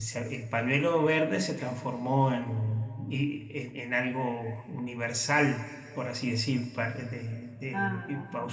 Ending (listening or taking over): listening